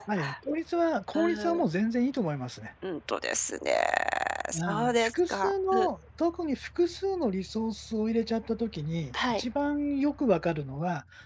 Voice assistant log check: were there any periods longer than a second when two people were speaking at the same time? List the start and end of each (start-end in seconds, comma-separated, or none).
4.5-5.9